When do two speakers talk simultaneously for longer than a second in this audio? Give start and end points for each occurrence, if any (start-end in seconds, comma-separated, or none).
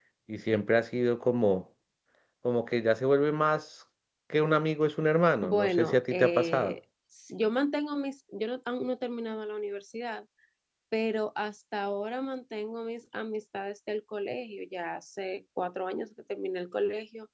5.4-6.8